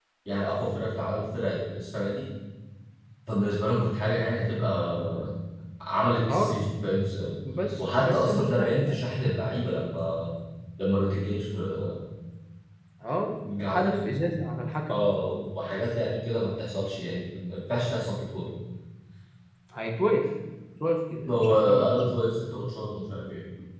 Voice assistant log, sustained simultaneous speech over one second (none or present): present